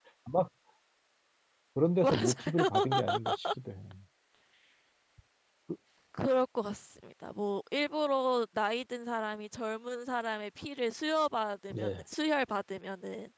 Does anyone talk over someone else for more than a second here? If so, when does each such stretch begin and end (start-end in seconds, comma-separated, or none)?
2.0-3.4